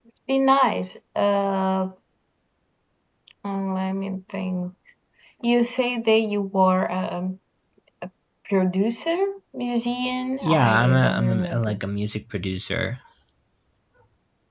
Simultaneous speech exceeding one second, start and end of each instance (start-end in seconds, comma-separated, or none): 10.4-11.8